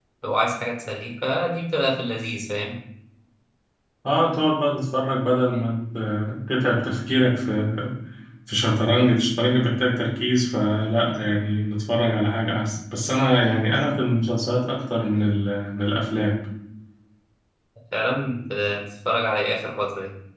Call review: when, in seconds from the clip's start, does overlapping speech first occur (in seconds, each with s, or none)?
none